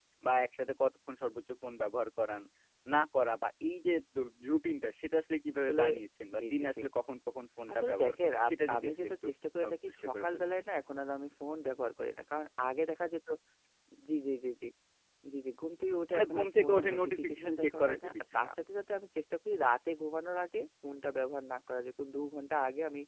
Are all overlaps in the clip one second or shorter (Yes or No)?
No